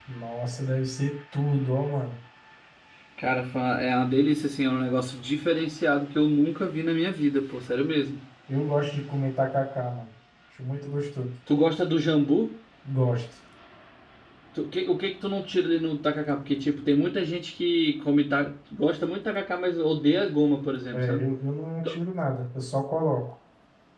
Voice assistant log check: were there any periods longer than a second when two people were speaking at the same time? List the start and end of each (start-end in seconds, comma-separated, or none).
none